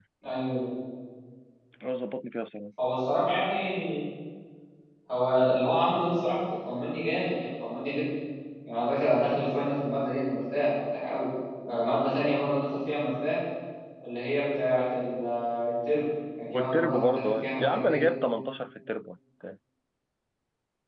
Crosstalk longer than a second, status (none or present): present